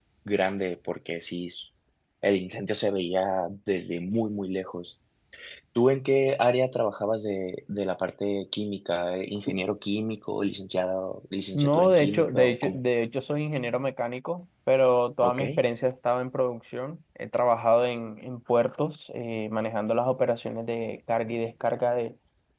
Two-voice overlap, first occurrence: 12 s

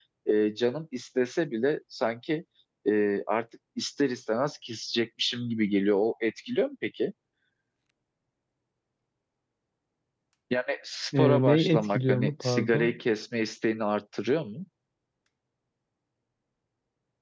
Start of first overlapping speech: 11 s

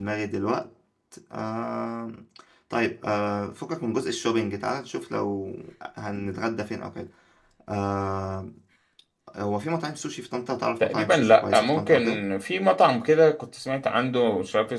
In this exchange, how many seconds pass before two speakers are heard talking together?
11 s

